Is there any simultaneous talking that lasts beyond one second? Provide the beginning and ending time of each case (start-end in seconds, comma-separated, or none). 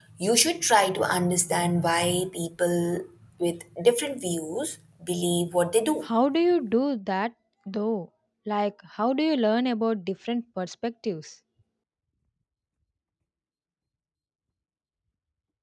none